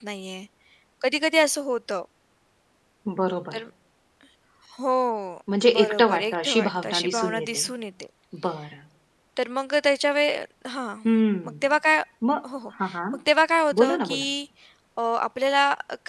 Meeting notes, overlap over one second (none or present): present